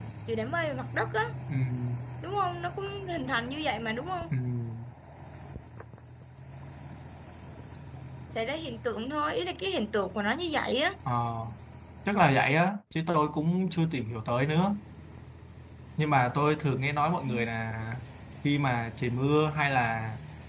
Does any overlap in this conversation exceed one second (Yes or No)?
No